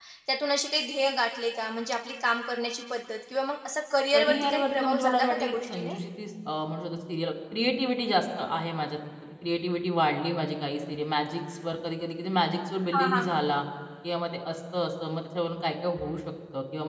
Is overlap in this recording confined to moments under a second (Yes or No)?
No